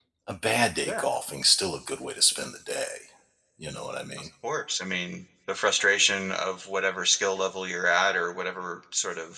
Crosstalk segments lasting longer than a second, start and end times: none

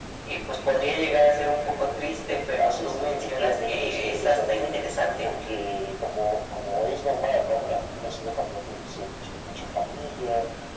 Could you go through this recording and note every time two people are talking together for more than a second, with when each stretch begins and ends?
2.6-4.8

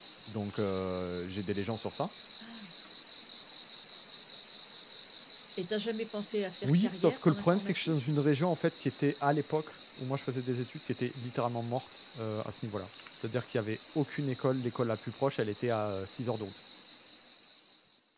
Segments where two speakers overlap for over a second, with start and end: 6.6-8.1

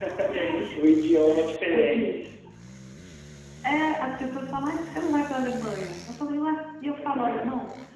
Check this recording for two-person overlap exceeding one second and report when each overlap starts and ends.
none

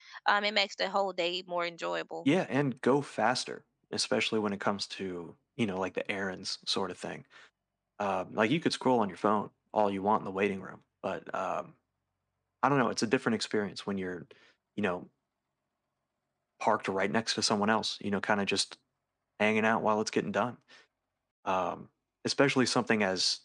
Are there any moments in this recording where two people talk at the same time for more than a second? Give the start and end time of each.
none

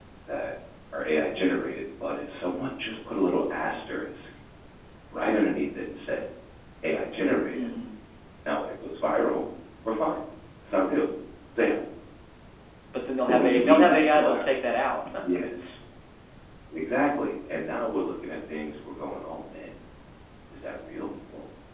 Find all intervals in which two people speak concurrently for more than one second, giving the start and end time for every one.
13.3-14.6

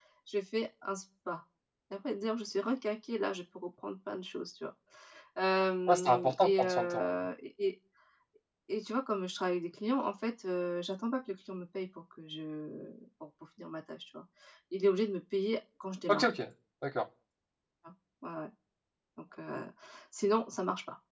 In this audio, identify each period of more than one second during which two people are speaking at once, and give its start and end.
5.9-7.1

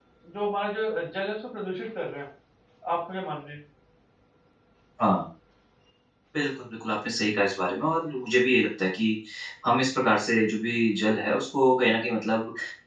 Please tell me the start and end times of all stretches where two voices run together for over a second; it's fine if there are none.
none

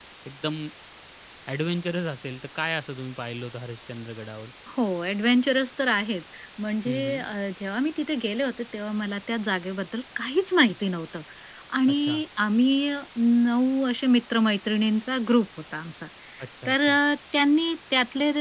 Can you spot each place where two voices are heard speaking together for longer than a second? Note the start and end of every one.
none

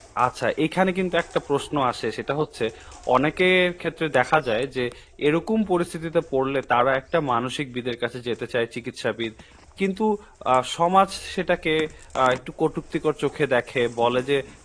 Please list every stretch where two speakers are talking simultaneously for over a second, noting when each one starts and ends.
none

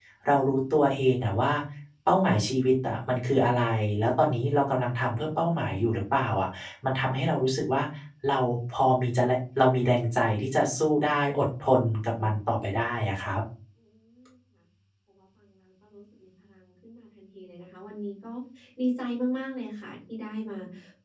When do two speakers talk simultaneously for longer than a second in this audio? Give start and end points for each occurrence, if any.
none

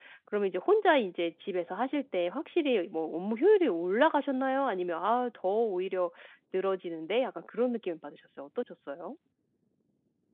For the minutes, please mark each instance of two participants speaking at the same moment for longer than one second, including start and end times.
none

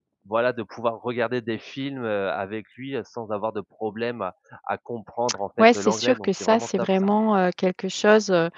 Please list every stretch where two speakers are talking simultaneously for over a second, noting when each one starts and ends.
5.6-6.9

